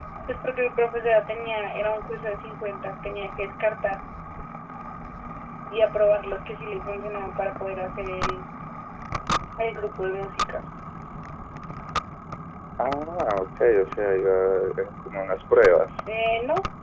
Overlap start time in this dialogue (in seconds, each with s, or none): none